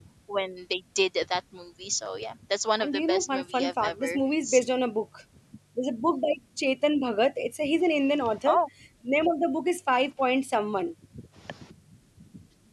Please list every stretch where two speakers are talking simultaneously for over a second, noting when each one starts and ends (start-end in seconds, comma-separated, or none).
2.8-4.7